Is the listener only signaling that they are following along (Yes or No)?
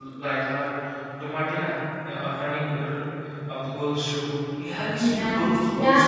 No